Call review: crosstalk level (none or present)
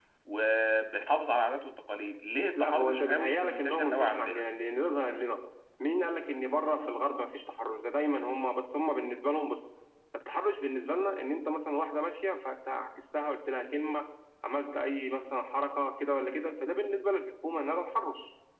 present